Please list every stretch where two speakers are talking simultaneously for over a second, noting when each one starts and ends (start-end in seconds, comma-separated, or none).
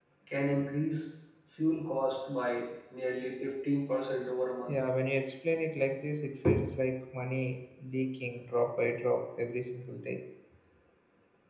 none